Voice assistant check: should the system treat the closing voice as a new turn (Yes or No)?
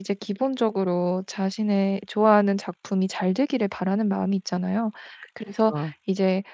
No